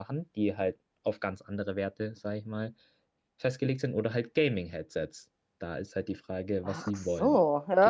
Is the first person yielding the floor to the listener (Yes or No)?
Yes